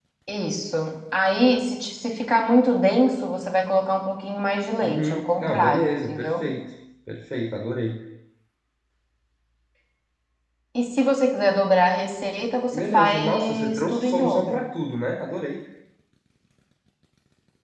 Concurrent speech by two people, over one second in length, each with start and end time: 4.8-6.5, 12.7-14.6

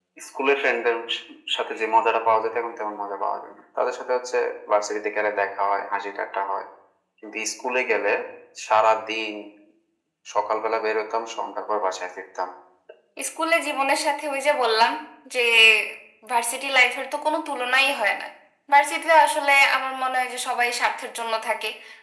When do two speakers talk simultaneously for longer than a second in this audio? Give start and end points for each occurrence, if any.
none

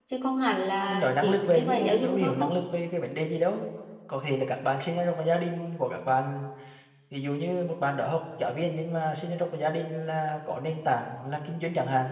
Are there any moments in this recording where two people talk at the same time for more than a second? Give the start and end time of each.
0.9-2.5

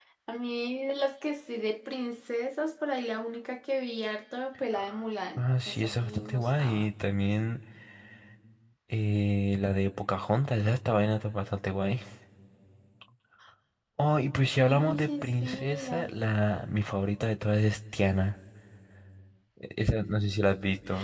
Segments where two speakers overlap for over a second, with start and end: 5.4-6.9, 14.7-16.1

